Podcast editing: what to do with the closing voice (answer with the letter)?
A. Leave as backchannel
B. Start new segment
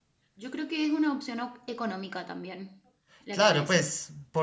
B